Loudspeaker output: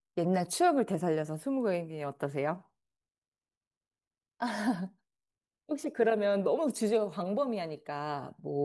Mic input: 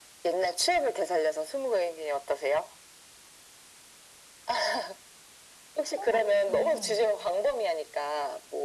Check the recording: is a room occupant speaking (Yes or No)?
Yes